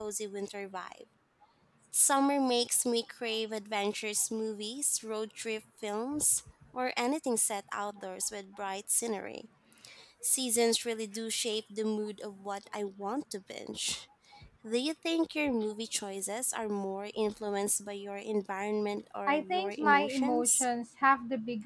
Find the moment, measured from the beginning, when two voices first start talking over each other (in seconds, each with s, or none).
19.3 s